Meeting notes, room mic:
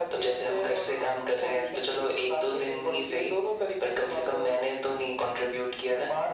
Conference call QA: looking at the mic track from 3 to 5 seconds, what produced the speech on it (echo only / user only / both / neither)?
echo only